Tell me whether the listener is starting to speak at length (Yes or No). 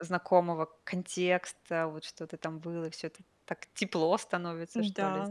Yes